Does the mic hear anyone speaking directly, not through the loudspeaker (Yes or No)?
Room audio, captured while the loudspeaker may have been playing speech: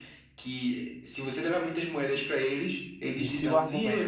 Yes